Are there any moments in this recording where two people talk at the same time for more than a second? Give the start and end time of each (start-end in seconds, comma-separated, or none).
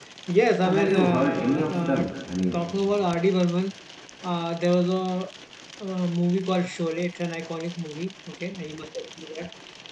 0.6-2.0